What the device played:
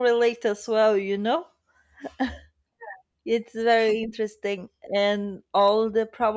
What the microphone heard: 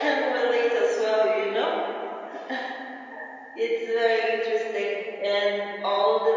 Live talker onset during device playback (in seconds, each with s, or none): none